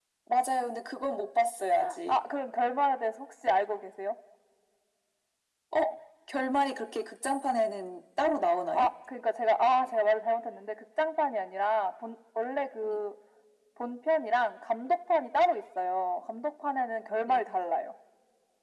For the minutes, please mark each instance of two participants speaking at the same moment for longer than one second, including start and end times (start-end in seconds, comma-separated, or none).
none